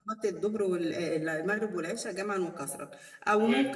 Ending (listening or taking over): listening